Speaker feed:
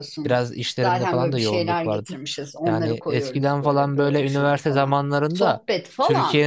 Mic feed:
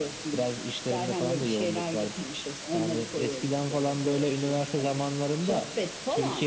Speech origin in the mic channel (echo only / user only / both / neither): echo only